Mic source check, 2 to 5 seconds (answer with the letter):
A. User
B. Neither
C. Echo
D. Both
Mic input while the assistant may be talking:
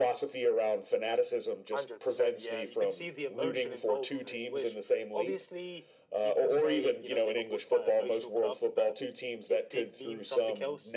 D